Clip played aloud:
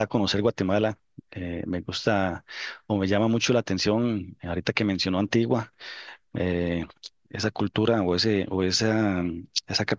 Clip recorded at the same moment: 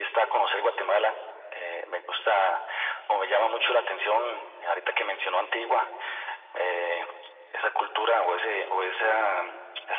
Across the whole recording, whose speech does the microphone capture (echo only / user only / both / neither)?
echo only